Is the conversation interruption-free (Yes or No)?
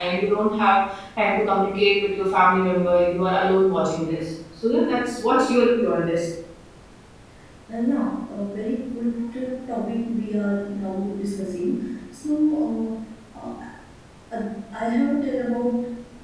Yes